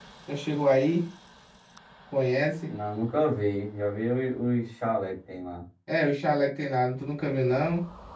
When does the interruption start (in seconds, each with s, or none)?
none